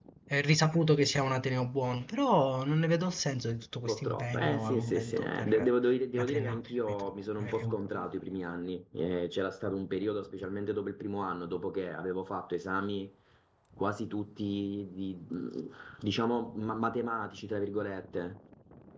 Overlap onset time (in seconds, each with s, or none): 3.9 s